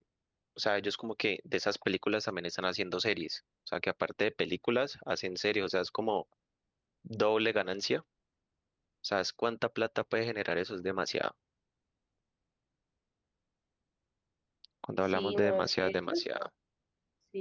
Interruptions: present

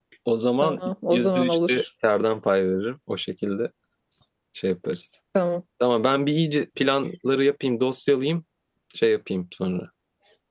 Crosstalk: present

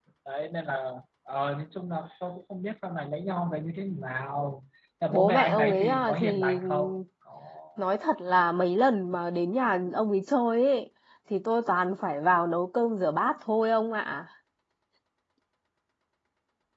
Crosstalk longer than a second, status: present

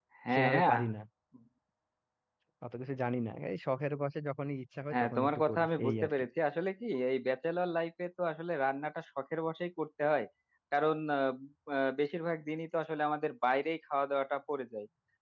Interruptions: present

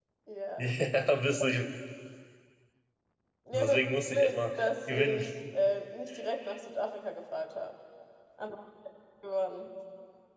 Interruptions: present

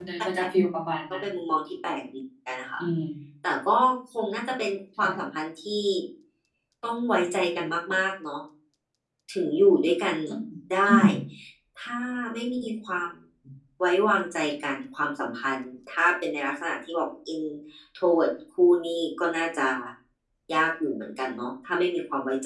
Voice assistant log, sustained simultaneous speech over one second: none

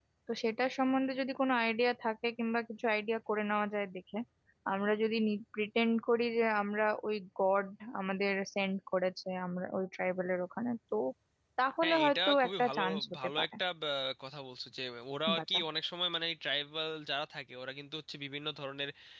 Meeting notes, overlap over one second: present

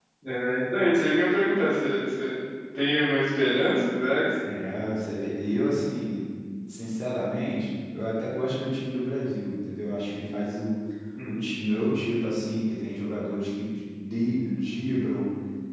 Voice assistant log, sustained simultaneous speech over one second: none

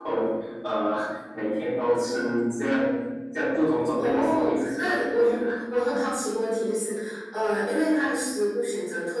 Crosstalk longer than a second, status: present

